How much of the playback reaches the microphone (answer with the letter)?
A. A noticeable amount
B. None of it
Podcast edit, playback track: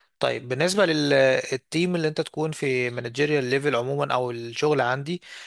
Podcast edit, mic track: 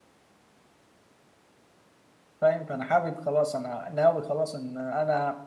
B